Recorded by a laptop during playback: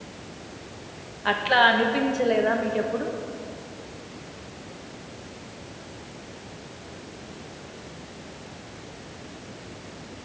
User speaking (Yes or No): Yes